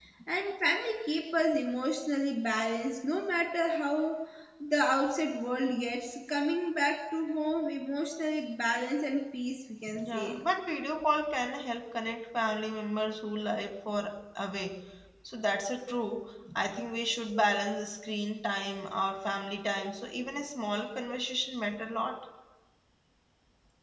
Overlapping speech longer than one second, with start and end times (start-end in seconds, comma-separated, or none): none